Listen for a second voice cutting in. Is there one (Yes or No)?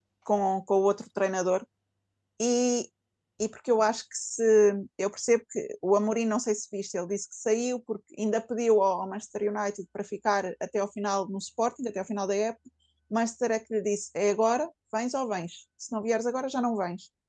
No